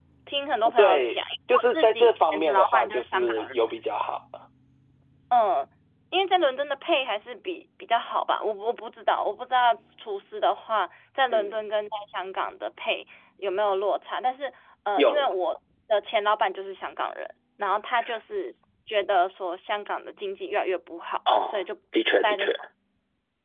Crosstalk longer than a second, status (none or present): present